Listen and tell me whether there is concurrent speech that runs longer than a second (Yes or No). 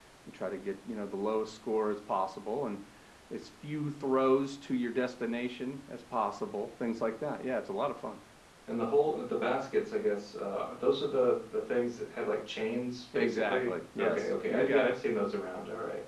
Yes